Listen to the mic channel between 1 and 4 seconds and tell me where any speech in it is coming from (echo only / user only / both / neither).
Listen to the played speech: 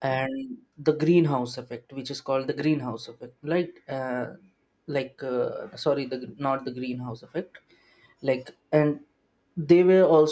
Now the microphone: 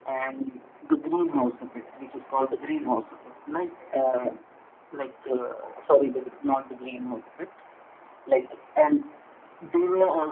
echo only